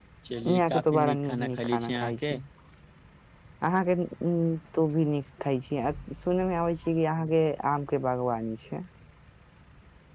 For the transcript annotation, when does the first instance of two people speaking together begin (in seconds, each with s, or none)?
0.5 s